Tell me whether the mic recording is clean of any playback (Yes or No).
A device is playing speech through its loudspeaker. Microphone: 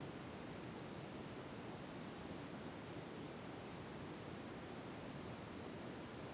Yes